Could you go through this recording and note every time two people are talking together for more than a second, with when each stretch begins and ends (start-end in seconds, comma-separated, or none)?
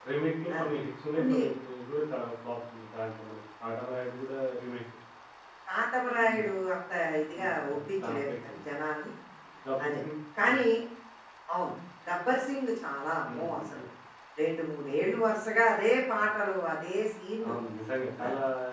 7.4-8.6